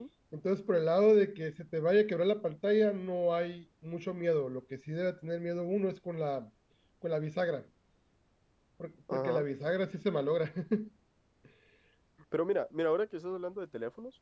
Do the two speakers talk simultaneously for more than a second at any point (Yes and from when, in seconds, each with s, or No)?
No